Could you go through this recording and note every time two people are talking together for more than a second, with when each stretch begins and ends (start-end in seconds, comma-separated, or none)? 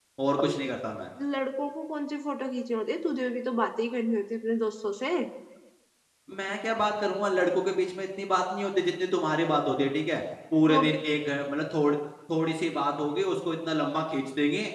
none